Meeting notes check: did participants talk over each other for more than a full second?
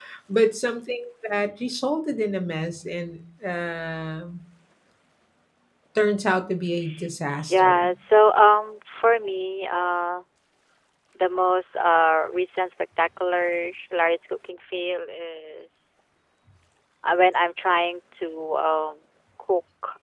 No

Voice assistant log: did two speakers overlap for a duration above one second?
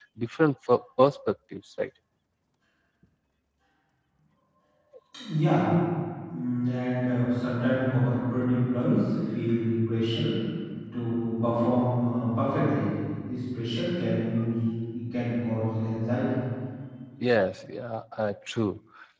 No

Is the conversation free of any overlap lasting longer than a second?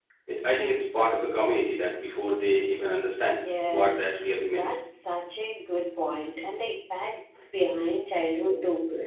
No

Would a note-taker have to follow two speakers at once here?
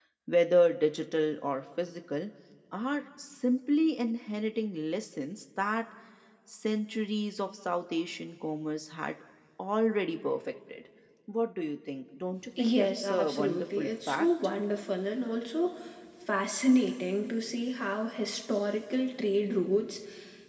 Yes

